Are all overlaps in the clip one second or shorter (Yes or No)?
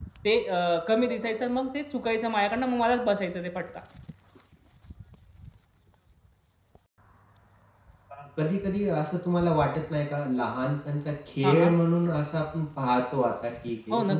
Yes